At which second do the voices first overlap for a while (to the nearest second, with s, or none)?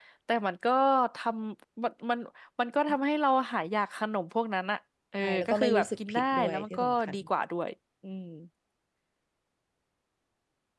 5 s